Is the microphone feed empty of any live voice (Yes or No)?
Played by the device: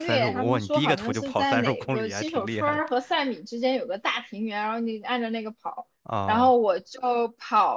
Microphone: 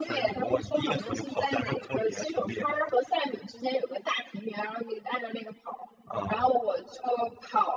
Yes